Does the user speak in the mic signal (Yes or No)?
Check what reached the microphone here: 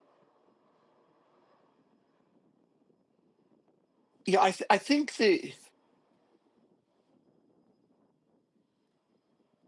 Yes